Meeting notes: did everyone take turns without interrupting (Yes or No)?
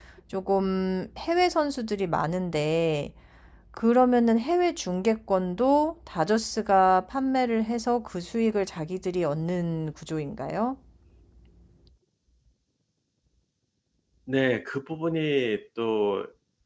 Yes